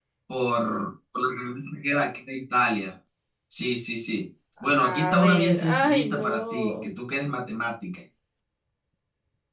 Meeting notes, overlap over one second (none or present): present